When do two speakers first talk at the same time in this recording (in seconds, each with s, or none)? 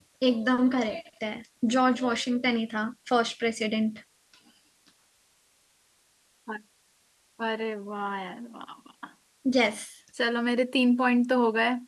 none